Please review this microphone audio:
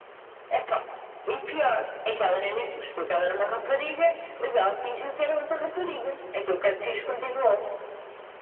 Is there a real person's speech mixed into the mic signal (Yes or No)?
No